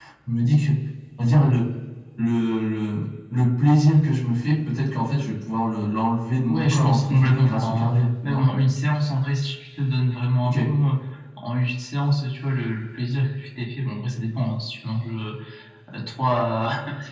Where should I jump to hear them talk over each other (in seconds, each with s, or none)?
6.5 s